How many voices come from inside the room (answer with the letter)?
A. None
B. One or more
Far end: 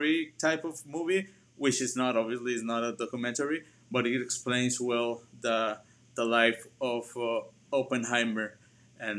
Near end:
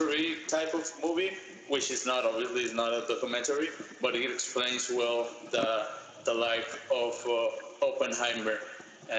A